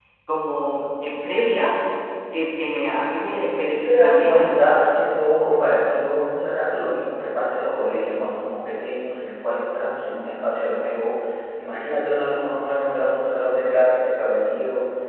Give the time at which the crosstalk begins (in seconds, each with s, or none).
3.6 s